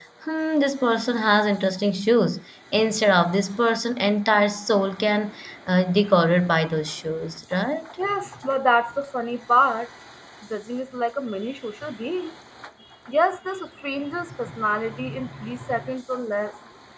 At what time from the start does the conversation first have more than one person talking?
none

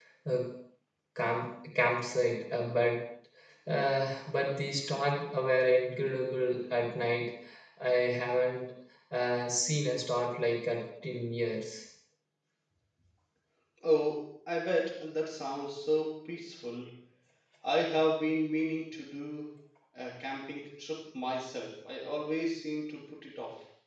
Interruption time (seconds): none

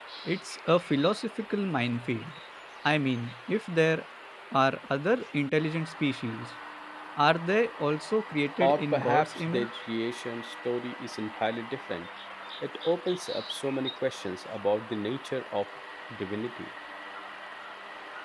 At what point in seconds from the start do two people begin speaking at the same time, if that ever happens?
8.6 s

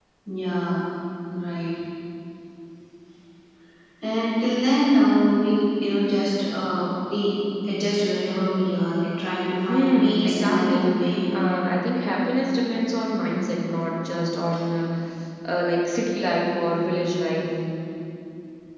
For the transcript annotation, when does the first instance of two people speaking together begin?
9.7 s

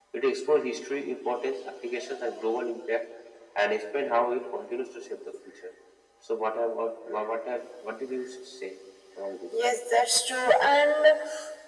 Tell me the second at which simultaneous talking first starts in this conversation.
none

